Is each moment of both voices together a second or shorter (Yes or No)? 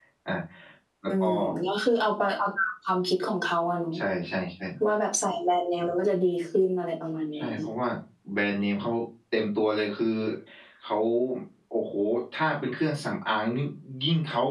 Yes